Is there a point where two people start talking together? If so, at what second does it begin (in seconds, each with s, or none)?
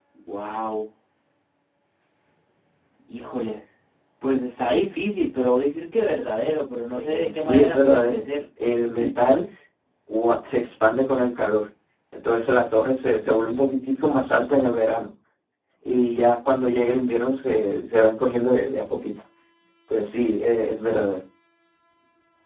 6.9 s